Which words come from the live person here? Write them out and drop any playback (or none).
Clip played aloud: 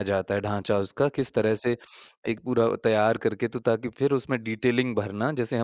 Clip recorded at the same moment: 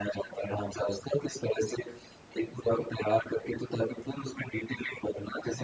none